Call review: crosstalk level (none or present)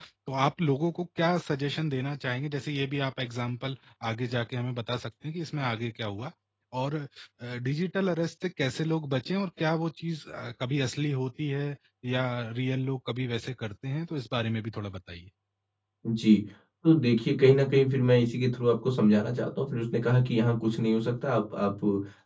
none